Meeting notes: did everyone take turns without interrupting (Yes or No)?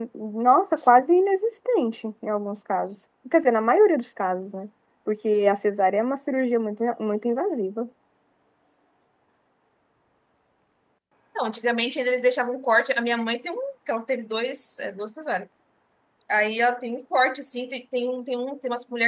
Yes